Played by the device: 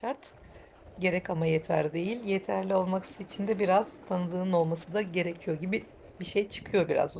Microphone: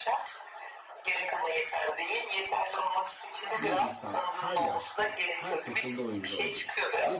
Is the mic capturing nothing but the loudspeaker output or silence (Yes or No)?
No